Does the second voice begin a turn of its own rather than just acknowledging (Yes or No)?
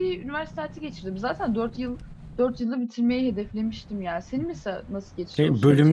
Yes